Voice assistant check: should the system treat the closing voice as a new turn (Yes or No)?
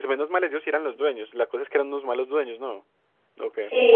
Yes